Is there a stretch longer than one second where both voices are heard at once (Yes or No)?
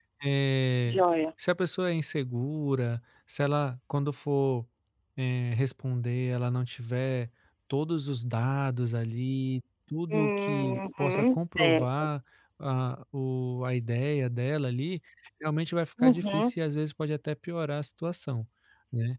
Yes